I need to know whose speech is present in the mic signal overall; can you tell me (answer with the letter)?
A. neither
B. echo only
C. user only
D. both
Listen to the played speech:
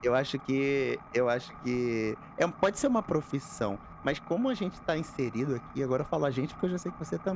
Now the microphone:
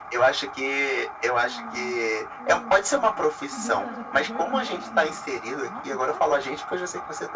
D